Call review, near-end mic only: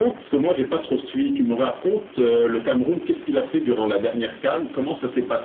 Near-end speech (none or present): none